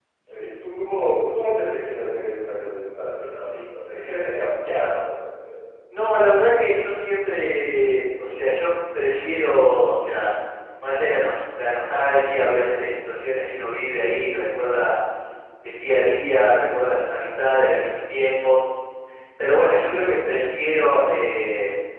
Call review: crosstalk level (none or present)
none